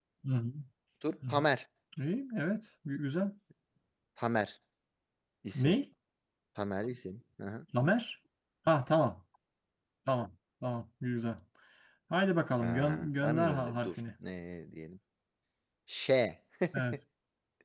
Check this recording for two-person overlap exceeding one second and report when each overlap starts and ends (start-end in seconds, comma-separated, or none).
12.6-13.9